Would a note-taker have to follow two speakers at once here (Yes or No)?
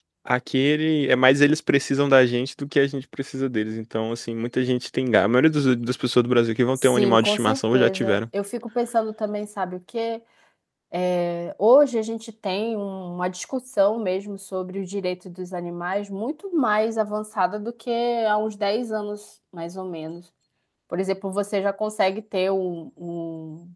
Yes